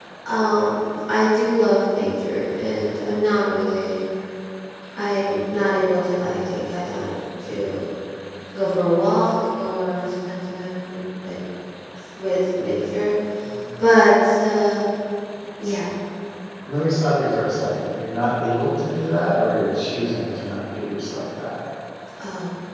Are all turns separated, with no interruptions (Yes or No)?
Yes